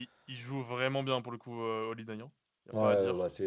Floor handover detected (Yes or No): Yes